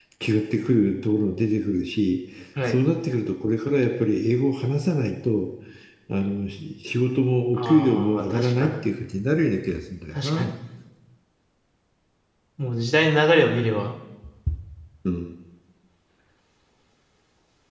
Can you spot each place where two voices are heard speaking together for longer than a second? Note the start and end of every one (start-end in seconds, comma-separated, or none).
7.6-8.8